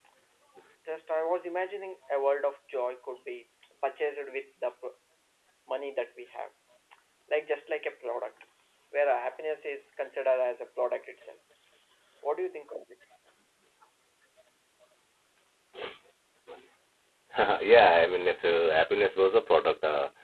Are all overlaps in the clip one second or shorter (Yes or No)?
Yes